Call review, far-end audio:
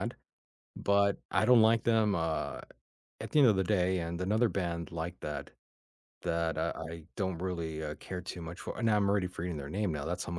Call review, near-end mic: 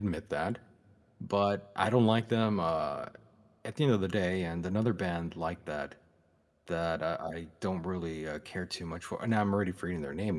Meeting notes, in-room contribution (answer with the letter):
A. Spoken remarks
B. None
B